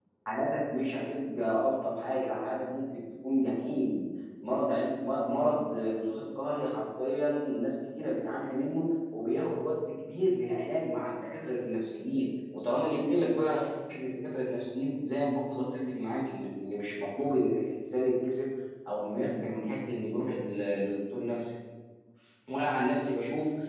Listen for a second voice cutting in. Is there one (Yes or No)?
No